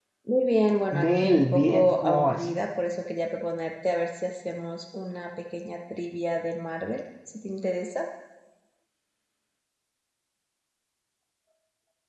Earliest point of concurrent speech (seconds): 0.9 s

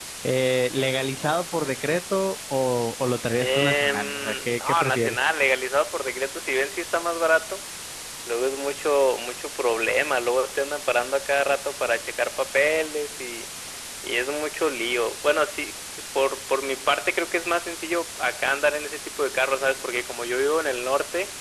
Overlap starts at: 3.4 s

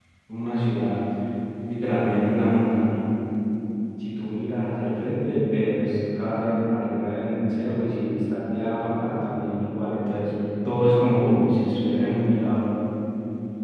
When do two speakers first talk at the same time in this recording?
none

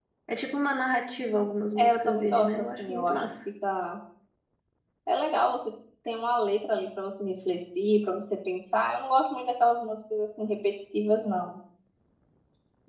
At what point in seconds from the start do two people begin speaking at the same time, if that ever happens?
1.8 s

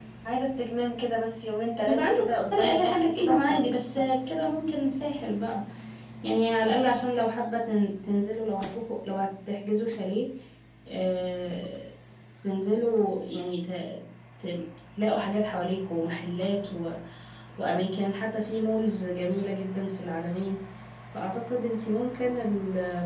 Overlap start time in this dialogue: 1.9 s

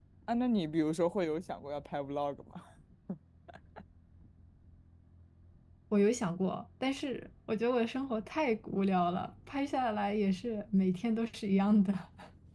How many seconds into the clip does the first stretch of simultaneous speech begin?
none

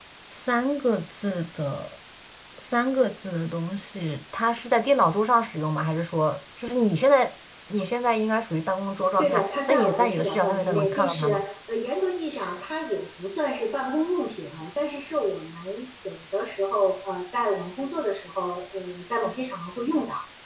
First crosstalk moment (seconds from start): 9.2 s

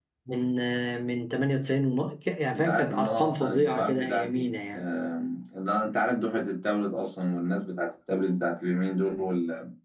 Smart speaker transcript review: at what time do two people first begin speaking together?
2.5 s

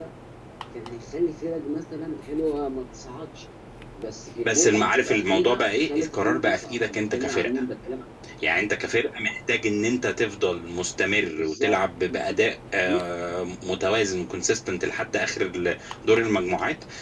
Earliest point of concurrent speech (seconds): 4.4 s

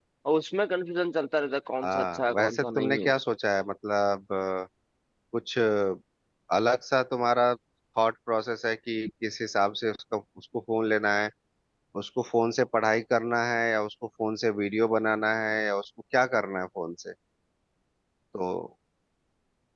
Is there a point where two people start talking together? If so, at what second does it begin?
1.8 s

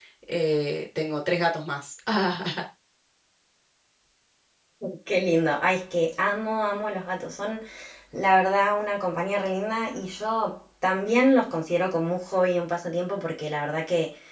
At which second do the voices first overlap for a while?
none

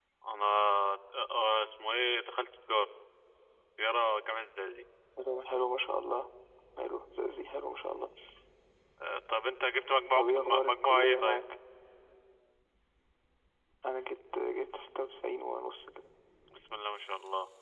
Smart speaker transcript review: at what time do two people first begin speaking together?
10.1 s

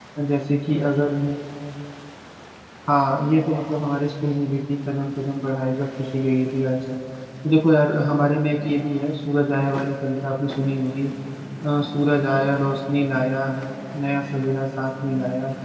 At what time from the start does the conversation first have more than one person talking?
none

